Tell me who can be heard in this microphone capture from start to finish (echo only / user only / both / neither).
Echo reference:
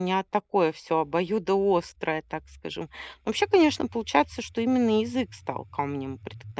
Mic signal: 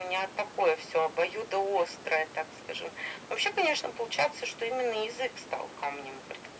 echo only